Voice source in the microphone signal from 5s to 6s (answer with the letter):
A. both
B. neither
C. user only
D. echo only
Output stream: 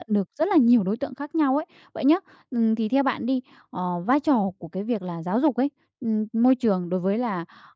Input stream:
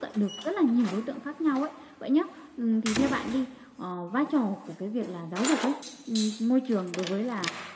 D